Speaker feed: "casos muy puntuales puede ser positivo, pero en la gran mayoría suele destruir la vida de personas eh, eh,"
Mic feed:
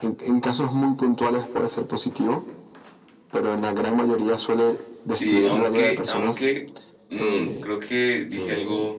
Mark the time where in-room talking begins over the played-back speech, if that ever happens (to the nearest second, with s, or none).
5 s